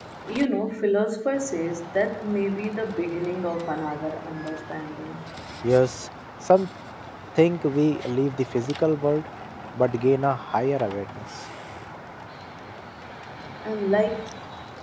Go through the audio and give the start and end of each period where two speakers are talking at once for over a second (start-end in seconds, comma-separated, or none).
none